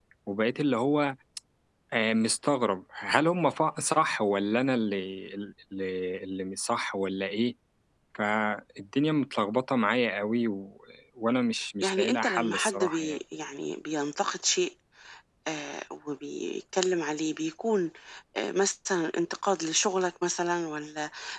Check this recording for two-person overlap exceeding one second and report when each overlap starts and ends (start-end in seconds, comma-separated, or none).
11.8-13.2